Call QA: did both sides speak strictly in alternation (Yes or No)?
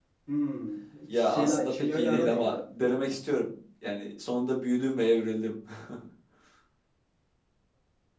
No